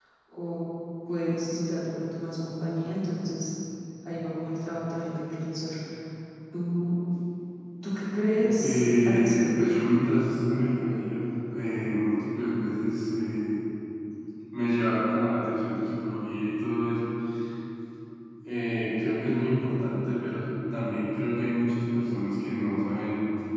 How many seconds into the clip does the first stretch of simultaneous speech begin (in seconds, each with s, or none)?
8.6 s